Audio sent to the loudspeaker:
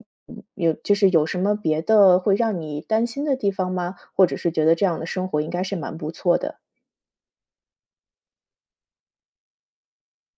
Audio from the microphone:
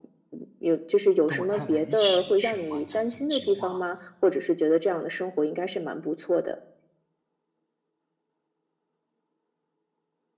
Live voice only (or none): 跟我太太一起去完成这个计划。